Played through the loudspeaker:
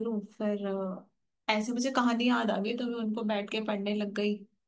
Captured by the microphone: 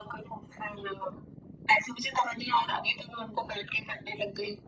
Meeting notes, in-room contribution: none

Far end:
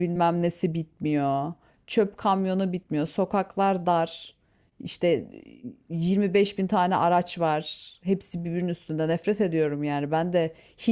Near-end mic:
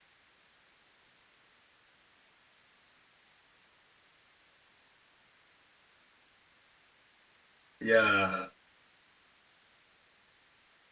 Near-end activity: present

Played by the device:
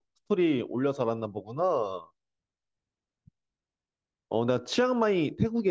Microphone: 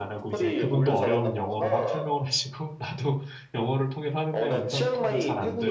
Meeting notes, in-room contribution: present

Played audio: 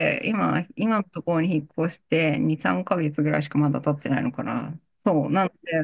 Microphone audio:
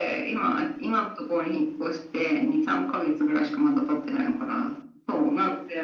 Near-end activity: none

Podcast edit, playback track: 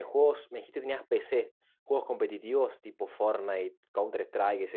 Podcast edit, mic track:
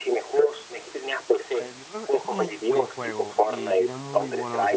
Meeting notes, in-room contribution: present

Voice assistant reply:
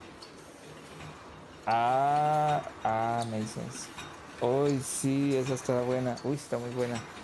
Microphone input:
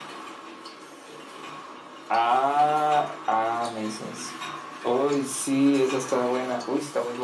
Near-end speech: none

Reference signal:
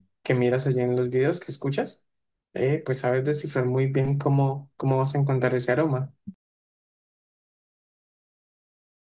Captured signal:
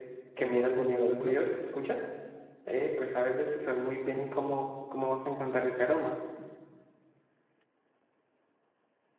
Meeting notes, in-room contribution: present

